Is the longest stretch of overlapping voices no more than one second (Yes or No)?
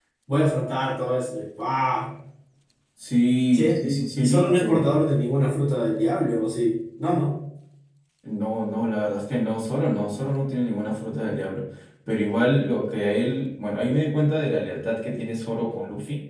No